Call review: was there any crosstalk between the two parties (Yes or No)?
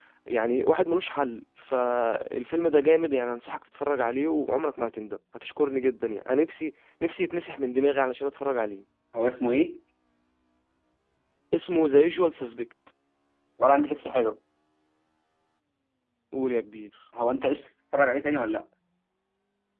No